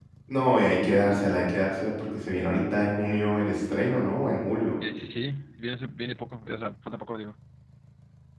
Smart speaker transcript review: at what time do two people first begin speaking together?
none

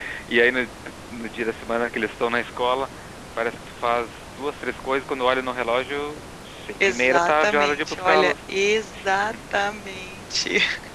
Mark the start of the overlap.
6.8 s

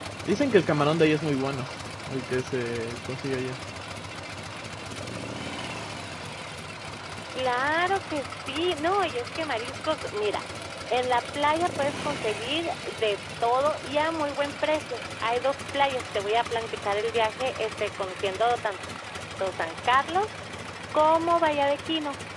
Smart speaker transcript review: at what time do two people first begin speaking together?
none

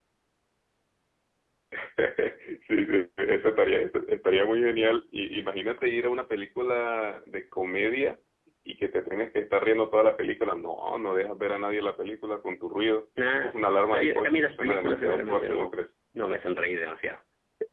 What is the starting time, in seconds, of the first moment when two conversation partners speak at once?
13.2 s

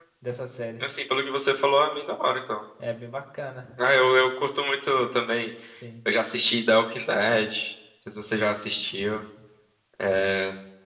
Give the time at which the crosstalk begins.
none

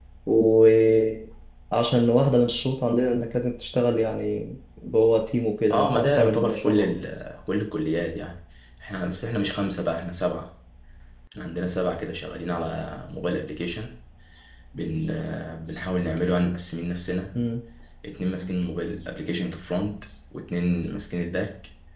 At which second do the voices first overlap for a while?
5.7 s

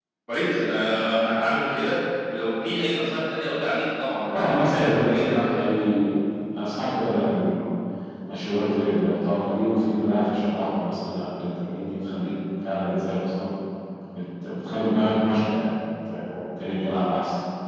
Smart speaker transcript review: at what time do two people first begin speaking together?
4.3 s

